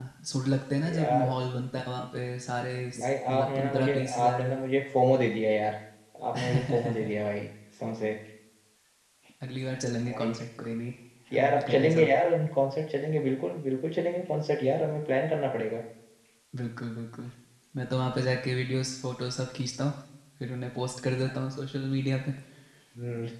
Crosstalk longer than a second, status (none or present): present